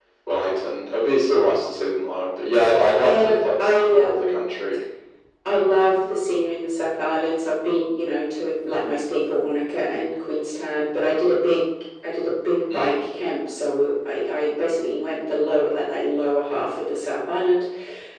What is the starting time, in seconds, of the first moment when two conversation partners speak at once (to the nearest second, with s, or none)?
3 s